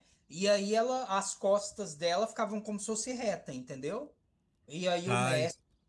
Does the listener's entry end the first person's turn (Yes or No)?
No